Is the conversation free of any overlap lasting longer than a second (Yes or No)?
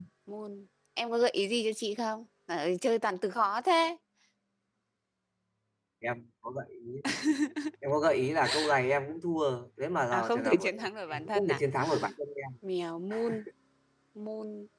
No